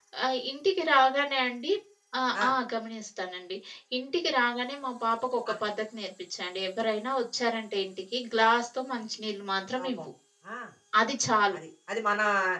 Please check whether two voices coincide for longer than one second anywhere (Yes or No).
No